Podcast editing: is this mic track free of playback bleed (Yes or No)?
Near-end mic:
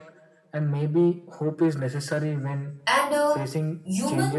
No